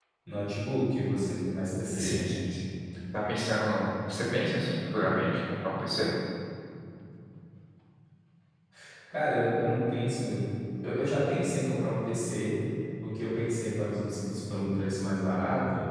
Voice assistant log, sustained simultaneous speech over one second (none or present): none